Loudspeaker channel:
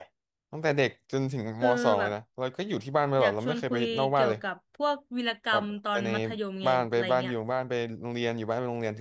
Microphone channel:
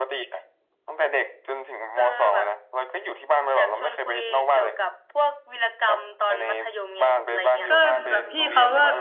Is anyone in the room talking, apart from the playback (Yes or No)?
Yes